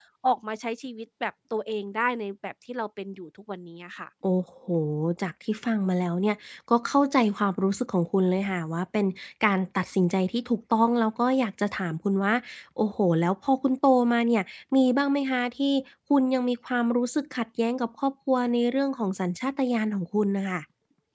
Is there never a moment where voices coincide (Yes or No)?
Yes